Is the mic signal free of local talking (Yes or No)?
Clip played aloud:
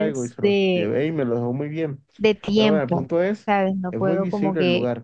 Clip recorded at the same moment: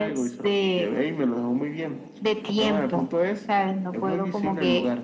Yes